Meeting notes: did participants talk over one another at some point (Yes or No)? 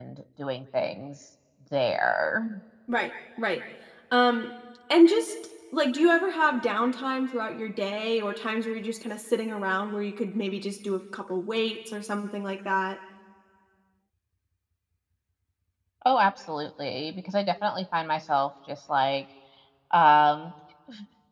No